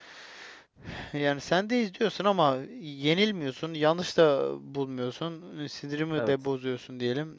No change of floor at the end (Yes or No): Yes